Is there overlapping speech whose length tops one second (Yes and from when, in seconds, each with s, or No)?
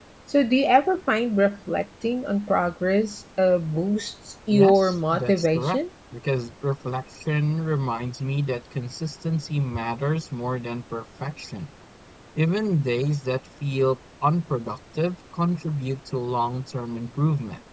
Yes, from 4.5 s